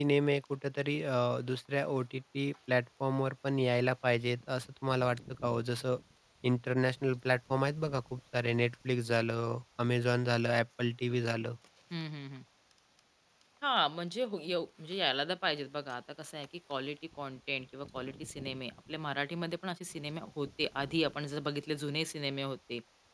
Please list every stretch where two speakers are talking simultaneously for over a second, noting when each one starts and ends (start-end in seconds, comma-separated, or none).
none